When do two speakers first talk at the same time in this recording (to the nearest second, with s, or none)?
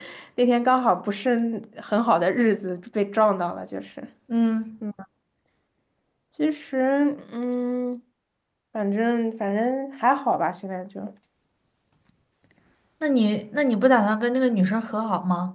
none